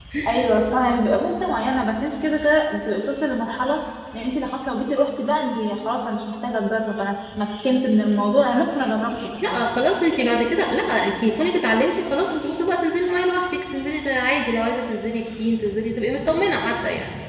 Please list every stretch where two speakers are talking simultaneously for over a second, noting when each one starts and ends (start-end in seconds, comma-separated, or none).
none